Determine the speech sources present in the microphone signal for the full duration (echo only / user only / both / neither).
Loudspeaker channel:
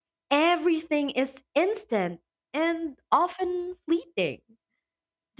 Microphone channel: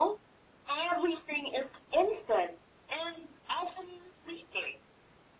echo only